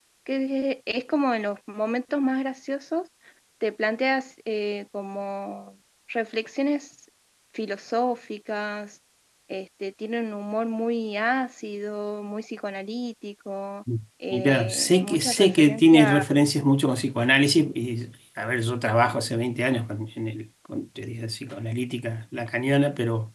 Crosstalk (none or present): present